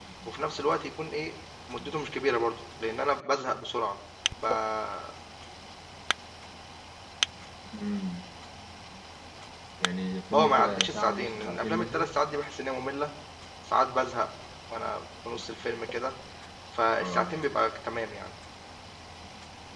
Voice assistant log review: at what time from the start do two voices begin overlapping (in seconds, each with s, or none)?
10.3 s